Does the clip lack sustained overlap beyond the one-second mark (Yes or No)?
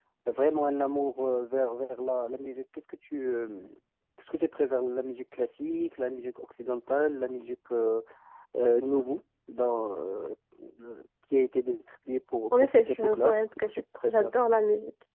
No